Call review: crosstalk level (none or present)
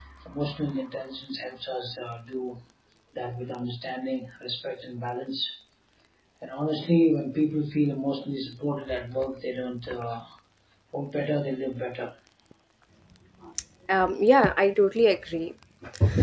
none